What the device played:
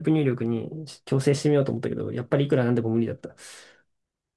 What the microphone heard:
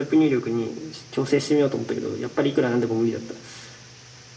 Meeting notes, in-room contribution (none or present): none